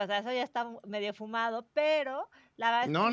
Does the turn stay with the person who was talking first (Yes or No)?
No